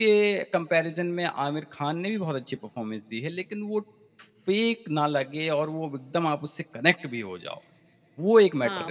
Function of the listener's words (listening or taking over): taking over